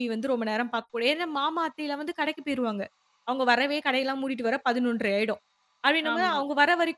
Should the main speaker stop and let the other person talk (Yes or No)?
No